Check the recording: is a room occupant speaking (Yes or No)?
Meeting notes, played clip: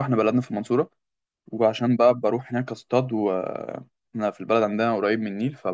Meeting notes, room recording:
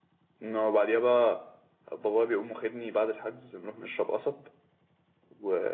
Yes